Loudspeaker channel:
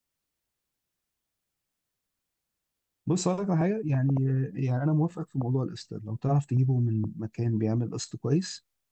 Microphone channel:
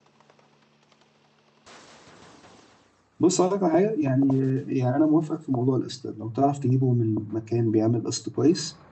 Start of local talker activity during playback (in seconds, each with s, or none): none